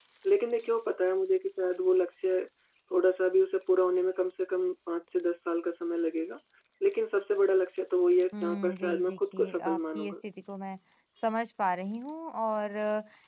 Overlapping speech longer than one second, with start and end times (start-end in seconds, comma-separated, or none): 8.4-10.2